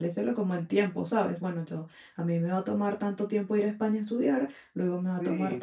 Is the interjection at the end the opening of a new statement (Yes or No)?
Yes